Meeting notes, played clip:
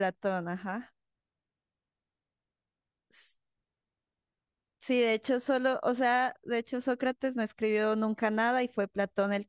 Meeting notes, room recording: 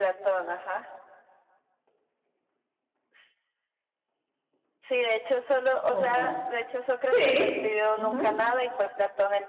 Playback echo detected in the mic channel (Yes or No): Yes